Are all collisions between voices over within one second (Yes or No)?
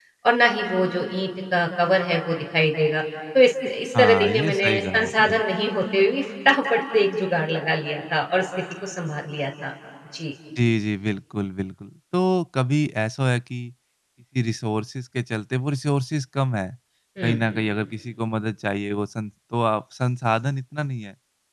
No